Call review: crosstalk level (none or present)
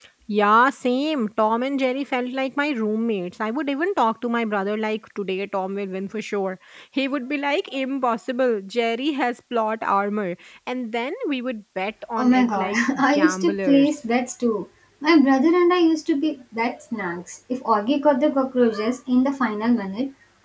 present